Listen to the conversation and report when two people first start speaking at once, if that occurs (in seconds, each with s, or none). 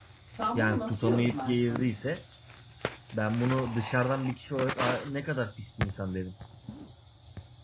0.6 s